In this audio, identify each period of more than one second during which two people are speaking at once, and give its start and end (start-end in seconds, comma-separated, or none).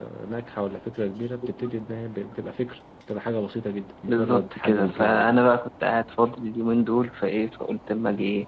4.1-5.4